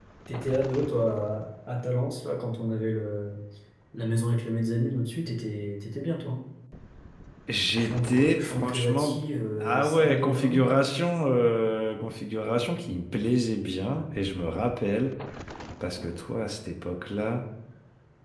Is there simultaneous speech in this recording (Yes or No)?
Yes